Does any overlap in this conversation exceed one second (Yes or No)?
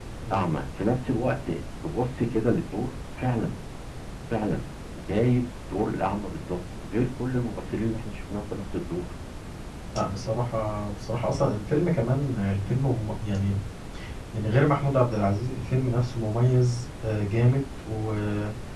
No